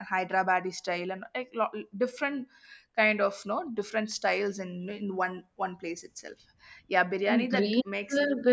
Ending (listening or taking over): taking over